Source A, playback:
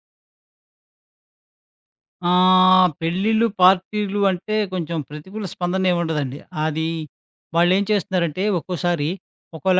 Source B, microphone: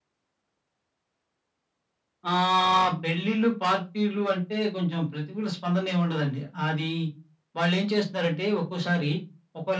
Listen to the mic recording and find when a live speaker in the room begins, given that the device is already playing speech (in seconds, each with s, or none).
none